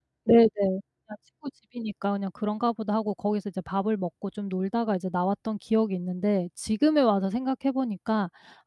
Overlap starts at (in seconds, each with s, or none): none